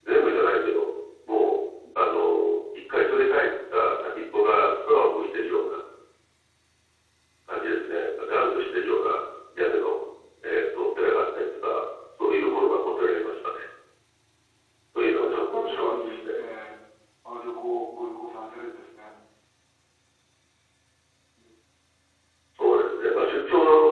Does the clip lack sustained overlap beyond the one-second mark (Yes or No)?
No